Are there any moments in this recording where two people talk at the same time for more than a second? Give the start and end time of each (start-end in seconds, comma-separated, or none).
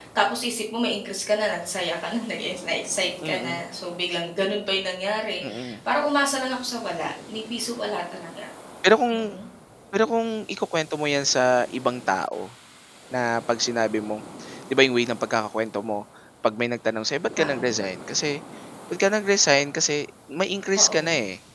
none